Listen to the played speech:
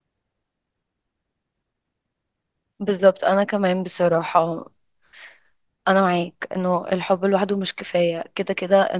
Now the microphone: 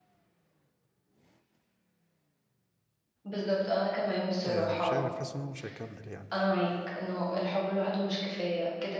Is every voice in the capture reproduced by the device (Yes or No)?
No